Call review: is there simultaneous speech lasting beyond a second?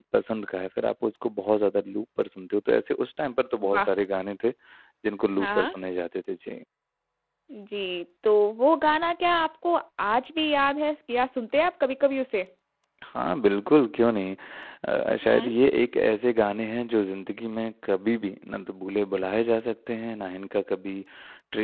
No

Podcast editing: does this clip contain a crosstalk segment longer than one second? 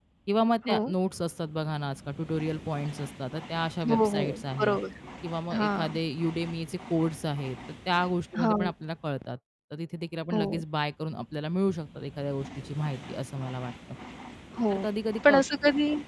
No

